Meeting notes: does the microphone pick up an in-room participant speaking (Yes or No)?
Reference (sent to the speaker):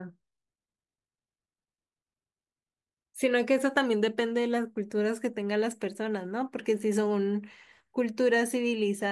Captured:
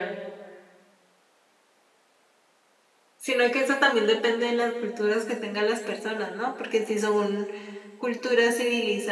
No